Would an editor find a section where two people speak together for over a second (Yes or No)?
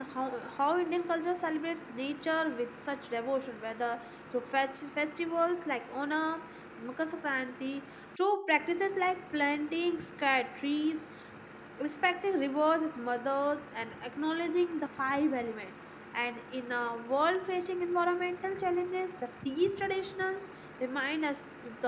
No